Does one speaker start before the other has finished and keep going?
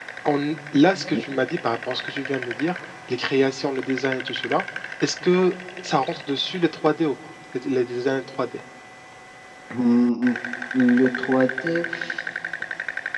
No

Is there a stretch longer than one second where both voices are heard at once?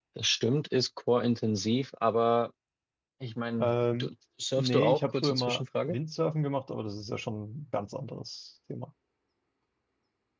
Yes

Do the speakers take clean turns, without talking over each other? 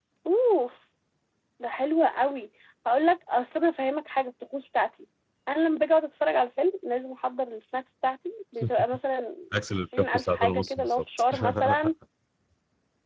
No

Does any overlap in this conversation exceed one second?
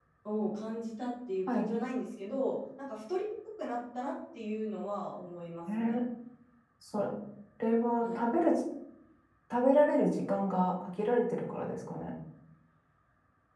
No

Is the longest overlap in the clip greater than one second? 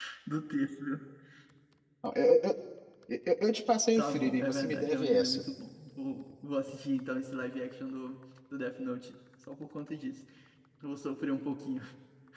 Yes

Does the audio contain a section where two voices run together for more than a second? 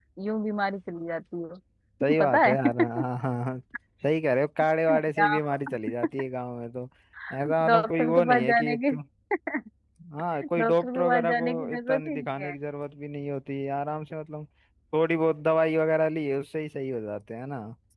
Yes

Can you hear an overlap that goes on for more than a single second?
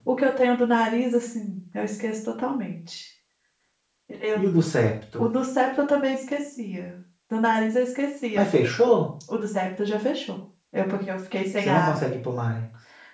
No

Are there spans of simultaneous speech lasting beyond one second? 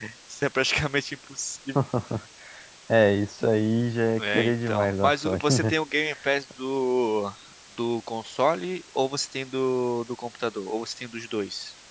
Yes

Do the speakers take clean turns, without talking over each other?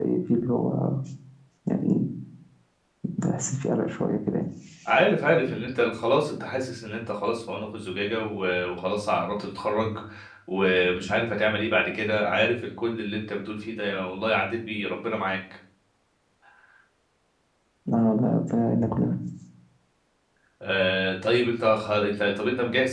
Yes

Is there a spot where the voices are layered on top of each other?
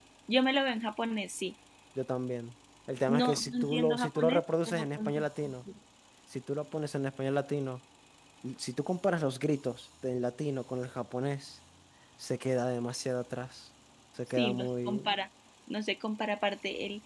Yes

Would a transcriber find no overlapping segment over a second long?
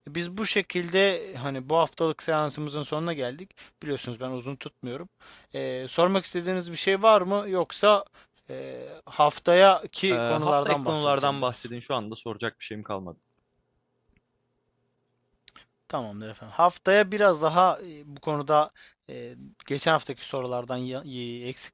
No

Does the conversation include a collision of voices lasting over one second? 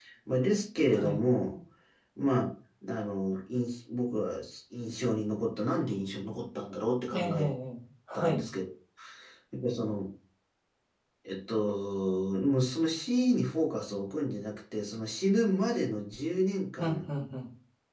No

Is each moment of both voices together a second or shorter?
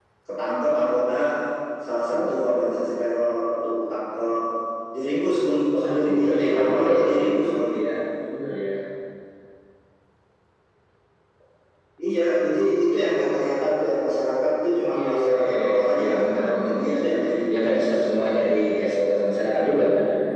No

